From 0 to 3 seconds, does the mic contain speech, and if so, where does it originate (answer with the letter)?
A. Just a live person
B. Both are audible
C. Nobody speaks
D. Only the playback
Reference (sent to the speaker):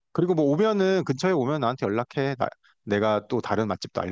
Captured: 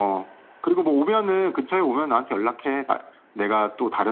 D